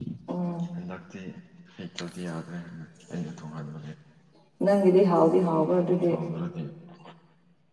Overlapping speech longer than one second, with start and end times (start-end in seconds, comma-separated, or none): none